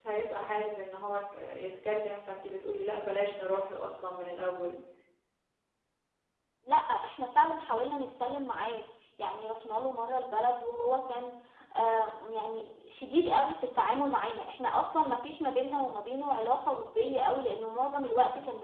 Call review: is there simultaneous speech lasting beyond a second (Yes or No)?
No